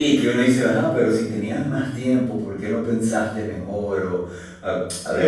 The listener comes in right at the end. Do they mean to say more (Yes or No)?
Yes